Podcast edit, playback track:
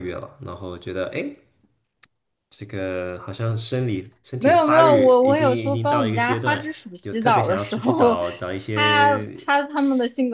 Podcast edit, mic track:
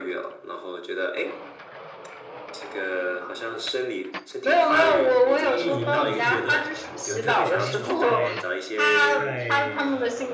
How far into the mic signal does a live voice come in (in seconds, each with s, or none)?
4.7 s